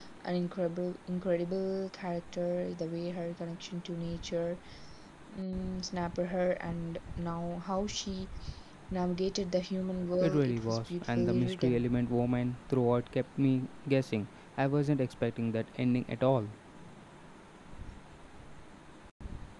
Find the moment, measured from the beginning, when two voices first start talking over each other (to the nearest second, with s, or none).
10 s